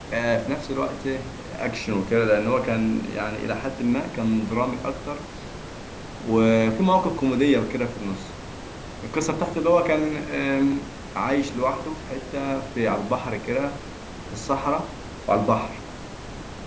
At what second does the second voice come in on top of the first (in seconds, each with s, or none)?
none